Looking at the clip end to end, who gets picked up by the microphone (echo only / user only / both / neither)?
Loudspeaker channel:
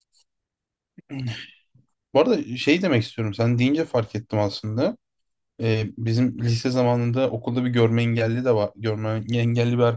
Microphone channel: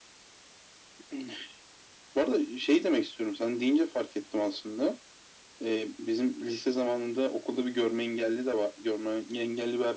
echo only